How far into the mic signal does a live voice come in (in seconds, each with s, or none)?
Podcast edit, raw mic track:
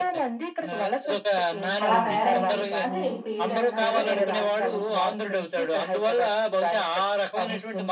1.8 s